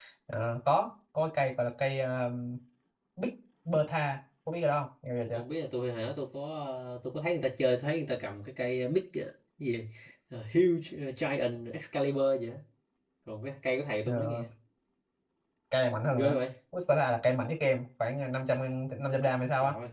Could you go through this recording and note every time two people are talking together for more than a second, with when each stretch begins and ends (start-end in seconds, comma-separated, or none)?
none